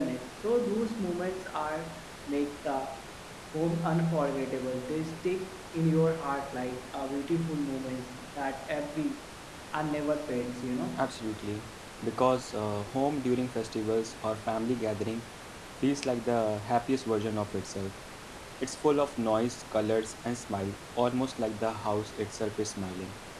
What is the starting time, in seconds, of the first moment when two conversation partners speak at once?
none

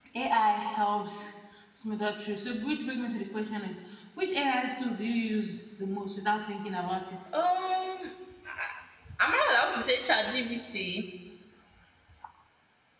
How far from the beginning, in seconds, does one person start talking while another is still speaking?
none

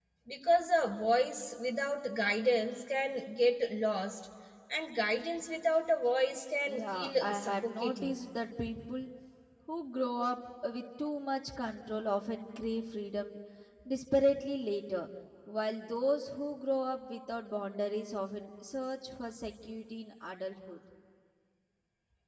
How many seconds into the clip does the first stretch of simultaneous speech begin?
6.7 s

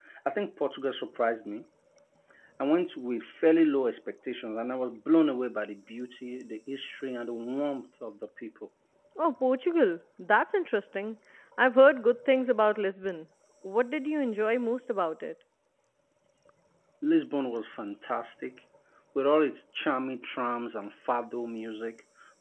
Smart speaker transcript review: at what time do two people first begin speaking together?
none

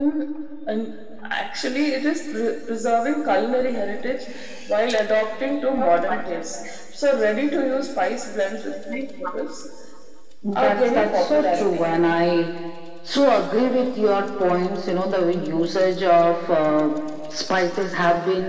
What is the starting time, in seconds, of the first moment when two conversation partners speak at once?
10.5 s

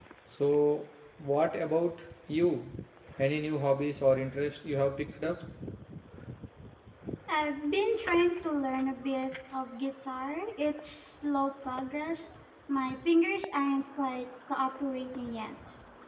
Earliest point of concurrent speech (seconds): none

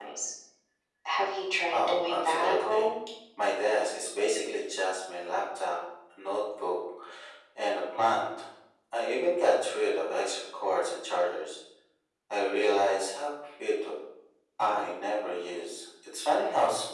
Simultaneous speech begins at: 1.7 s

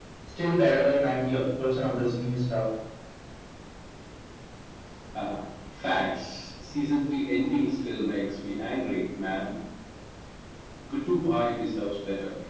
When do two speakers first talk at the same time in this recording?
none

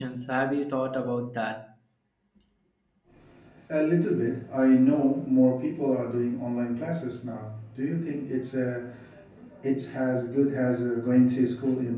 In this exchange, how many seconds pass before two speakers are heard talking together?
none

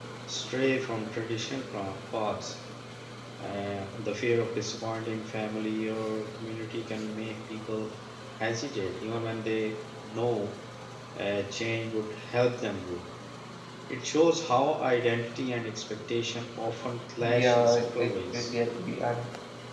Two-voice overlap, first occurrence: 17.2 s

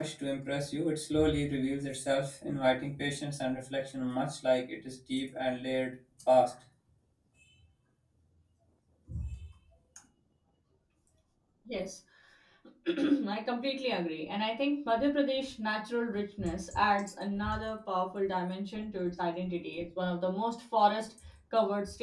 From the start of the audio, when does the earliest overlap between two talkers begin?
none

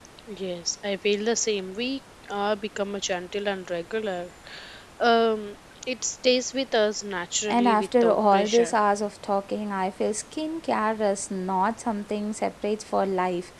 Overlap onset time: 7.5 s

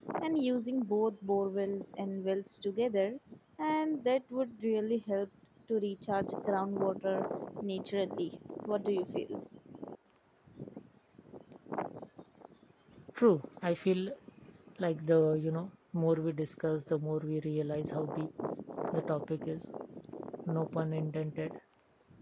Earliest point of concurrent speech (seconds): none

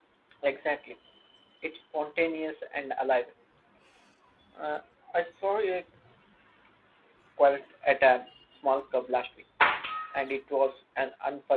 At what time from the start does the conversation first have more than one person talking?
none

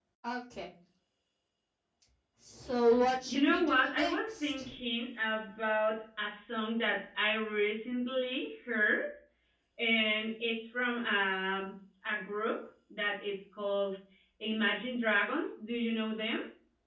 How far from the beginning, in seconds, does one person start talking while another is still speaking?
3.3 s

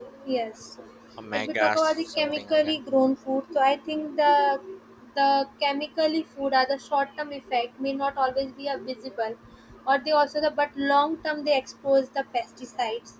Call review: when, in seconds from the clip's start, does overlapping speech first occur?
1.3 s

